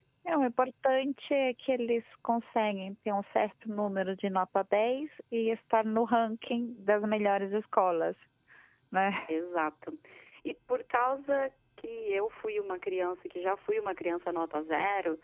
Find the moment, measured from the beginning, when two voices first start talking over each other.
none

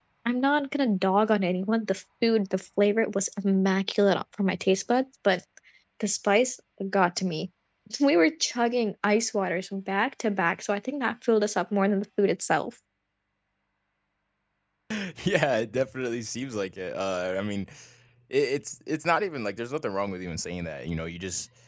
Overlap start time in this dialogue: none

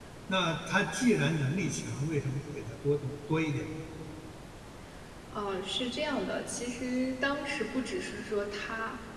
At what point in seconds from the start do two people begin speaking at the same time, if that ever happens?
none

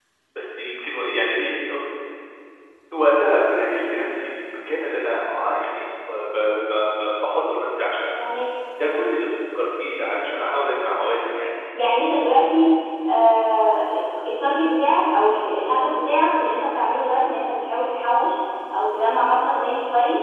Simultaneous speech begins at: none

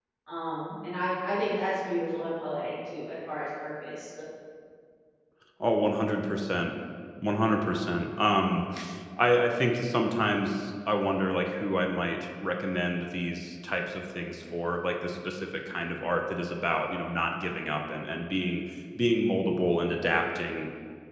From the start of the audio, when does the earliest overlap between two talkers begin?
none

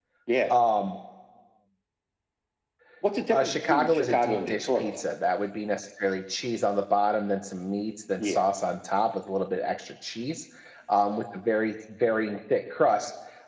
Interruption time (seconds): 3.3 s

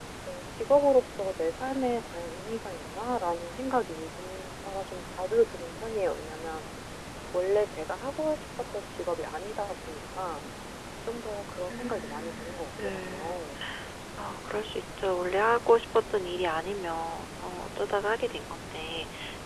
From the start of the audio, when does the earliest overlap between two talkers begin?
11.7 s

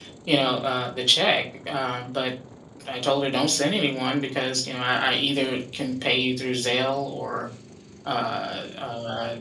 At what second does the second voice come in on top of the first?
none

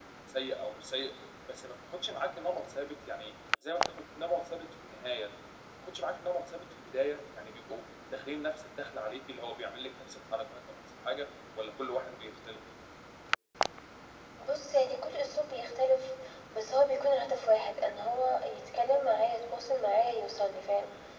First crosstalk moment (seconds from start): none

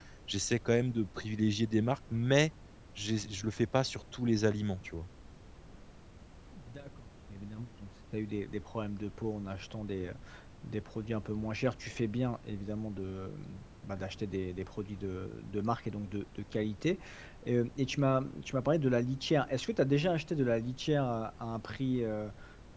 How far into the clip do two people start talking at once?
none

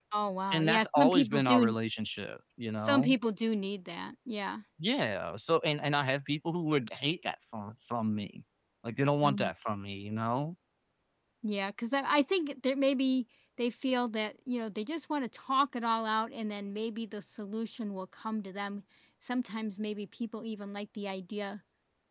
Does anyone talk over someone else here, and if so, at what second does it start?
0.5 s

